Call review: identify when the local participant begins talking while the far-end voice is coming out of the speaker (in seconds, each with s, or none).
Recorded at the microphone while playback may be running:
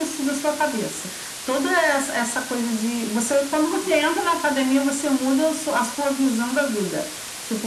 none